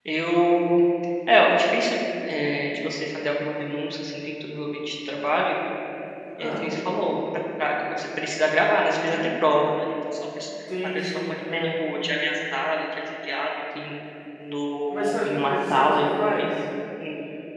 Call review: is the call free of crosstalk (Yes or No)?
No